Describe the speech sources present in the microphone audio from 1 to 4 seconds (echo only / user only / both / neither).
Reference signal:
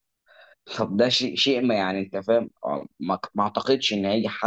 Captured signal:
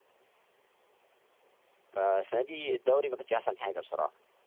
user only